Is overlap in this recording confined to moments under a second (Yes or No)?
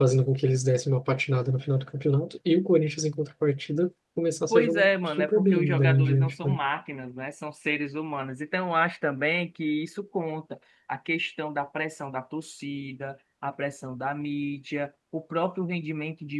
No